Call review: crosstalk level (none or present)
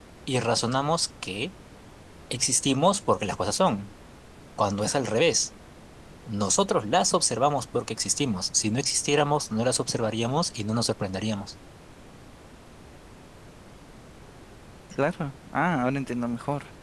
none